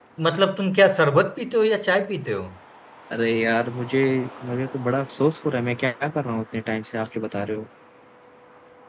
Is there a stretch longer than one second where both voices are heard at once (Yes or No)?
No